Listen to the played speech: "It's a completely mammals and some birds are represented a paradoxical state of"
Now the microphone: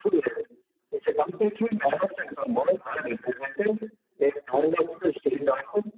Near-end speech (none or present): none